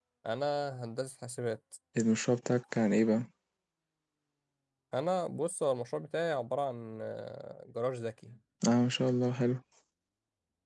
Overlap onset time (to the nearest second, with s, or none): none